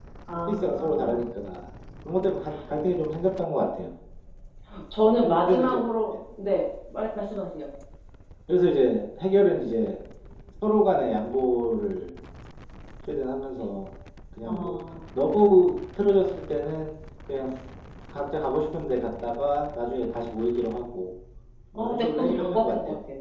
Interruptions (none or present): present